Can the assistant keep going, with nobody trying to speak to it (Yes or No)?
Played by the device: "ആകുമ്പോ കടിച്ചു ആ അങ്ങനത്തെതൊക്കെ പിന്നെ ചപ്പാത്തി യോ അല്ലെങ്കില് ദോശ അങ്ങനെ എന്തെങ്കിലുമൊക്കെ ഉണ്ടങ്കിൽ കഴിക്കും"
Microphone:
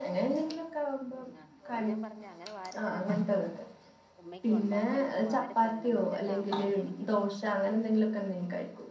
No